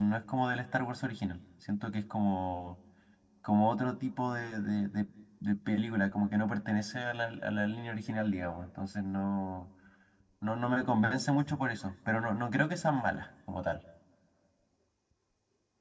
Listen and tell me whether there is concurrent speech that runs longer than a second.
No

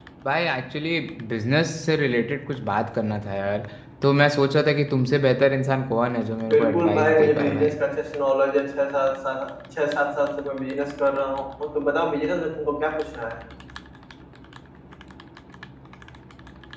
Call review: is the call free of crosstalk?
No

